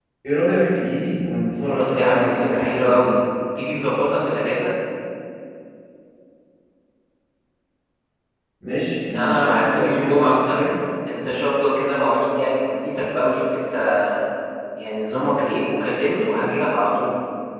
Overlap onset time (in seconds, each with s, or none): 1.6 s